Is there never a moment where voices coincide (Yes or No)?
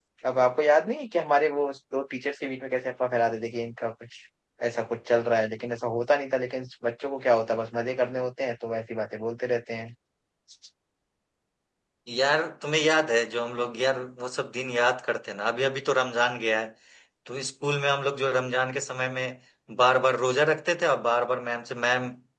Yes